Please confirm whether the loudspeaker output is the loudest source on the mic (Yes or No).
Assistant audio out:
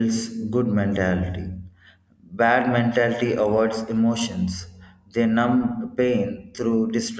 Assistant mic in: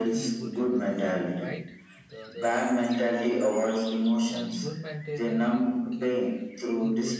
Yes